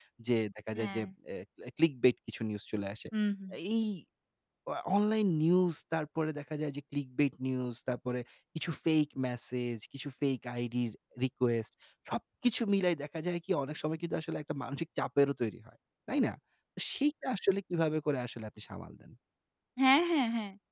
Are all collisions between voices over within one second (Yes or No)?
Yes